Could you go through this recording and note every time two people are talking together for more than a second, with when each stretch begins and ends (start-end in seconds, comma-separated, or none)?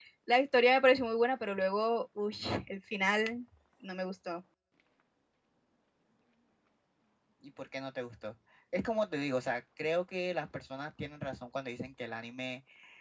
none